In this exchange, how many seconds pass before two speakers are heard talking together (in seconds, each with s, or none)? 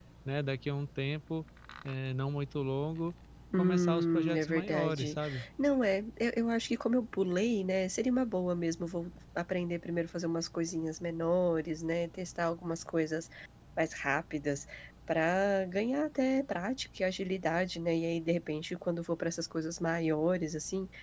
3.5 s